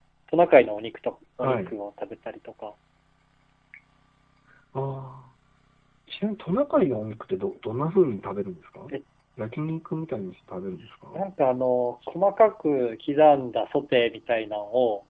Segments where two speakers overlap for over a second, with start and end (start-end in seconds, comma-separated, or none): none